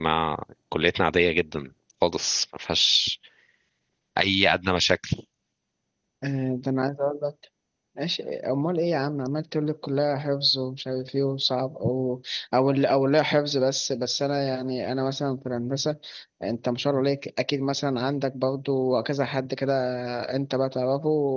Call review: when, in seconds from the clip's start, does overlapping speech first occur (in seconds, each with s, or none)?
none